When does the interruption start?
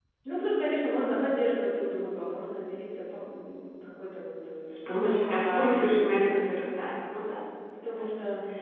4.9 s

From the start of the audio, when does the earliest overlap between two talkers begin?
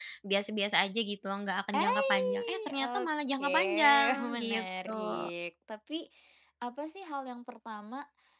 1.7 s

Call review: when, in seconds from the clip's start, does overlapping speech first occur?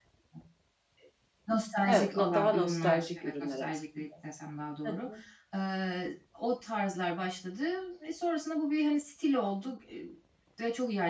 1.9 s

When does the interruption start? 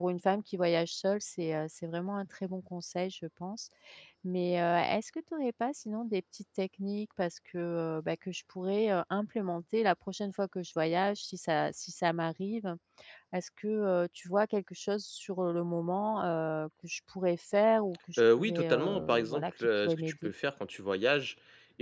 18.2 s

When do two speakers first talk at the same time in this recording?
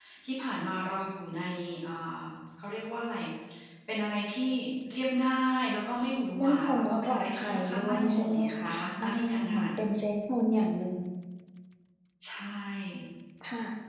6.4 s

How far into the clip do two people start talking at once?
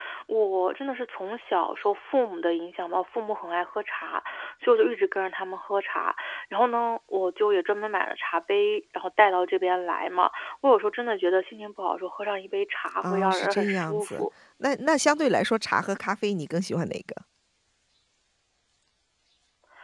13.0 s

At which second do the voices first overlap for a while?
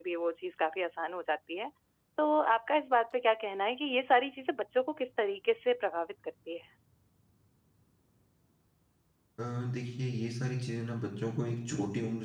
none

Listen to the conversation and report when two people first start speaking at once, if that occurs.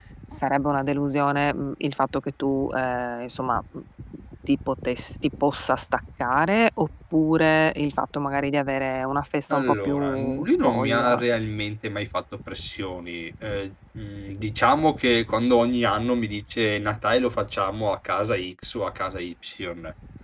9.5 s

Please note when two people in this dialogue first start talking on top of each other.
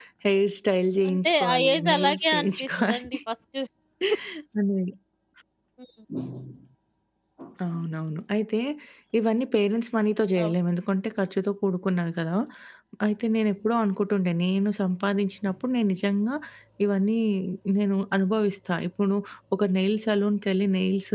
1.1 s

